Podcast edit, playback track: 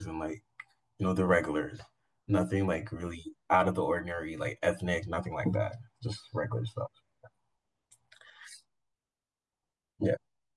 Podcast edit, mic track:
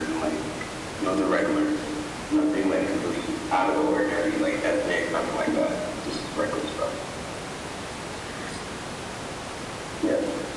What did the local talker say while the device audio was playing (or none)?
none